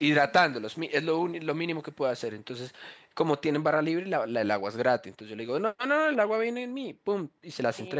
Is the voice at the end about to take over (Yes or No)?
No